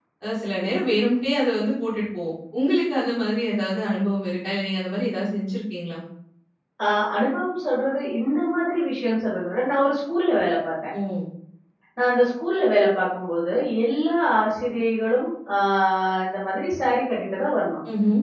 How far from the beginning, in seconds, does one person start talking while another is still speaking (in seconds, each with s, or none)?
none